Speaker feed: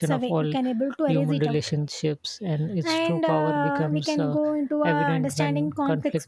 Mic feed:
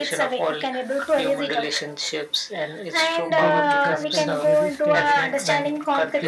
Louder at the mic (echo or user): echo